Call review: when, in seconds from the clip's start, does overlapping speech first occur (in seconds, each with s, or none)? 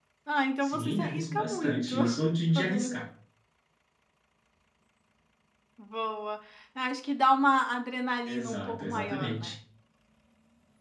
0.6 s